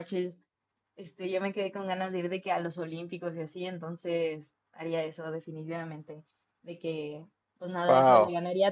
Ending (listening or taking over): listening